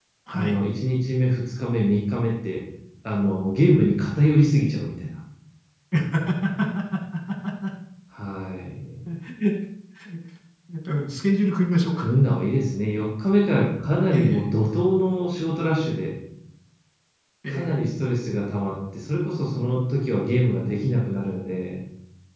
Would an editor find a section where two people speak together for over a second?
No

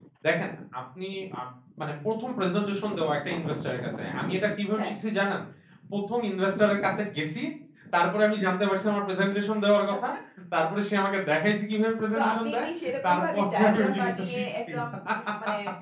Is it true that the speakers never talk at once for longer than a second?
No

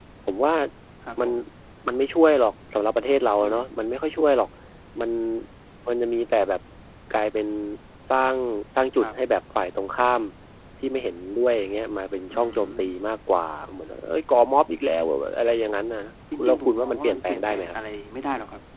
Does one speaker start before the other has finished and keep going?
Yes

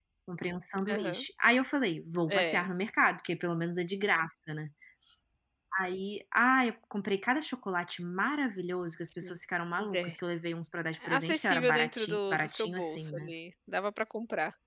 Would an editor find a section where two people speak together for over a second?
Yes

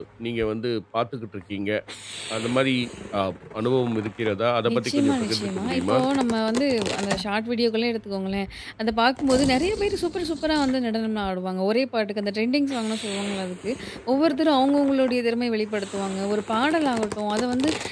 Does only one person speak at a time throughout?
No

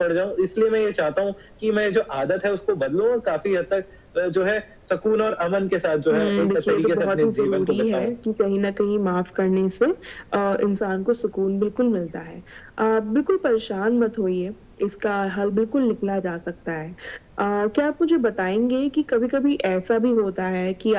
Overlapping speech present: Yes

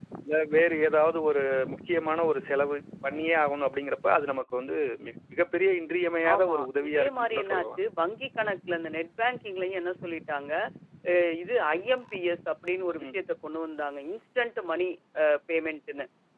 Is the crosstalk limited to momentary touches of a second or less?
No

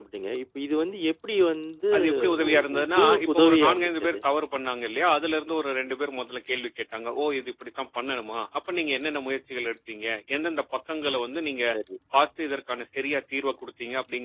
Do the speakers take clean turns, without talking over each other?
No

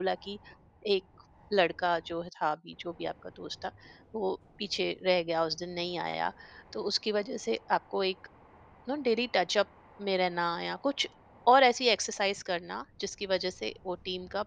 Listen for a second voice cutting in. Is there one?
No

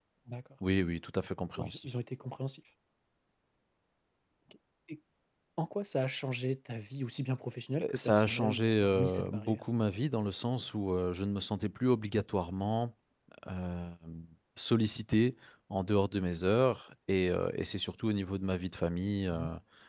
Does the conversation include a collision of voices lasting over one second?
Yes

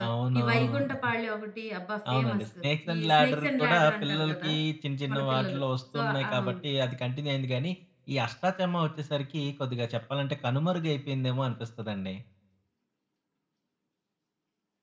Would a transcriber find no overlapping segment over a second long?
No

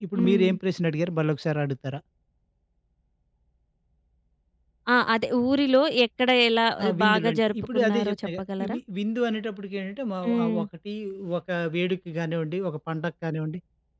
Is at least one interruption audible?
Yes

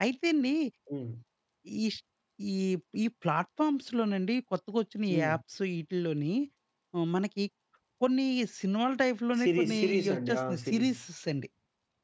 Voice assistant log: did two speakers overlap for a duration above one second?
Yes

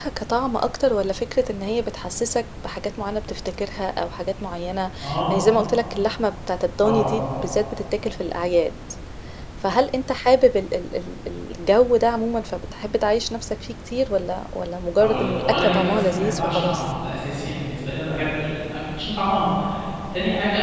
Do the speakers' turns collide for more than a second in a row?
Yes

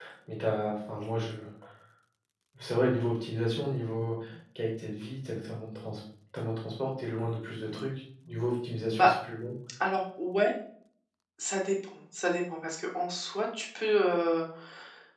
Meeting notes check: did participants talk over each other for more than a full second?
No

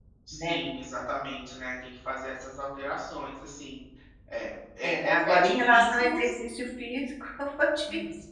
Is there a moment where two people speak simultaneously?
Yes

